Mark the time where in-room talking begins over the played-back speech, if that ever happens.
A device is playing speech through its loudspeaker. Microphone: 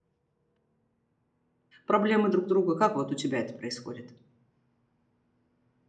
1.9 s

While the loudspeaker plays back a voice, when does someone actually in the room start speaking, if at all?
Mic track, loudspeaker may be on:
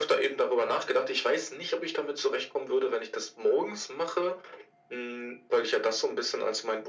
none

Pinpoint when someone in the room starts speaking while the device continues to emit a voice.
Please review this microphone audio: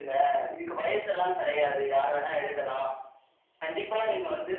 none

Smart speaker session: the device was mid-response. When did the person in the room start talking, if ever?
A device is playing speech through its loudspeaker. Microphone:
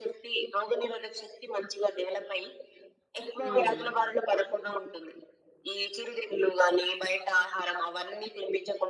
3.4 s

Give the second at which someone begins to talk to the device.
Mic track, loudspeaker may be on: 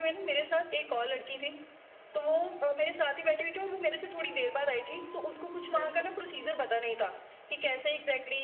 5.7 s

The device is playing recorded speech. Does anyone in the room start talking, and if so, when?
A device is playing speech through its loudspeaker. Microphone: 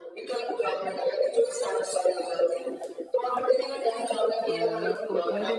4.5 s

